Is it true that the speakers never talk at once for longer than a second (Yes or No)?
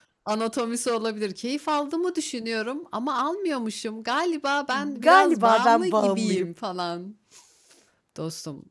No